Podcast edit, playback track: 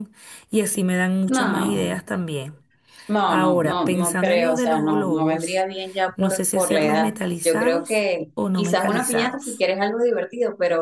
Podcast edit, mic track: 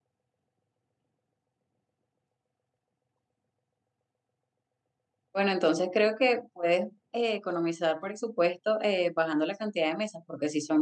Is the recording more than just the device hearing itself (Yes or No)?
Yes